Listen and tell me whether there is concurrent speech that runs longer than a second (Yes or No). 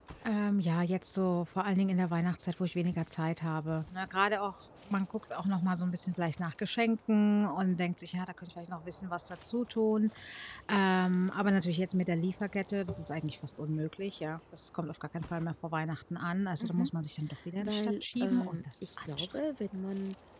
Yes